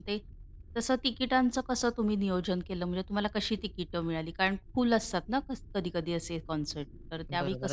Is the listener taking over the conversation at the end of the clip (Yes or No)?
Yes